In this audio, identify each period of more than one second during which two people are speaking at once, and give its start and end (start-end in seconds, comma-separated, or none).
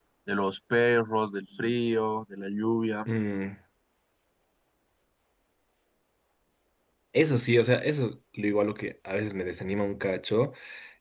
none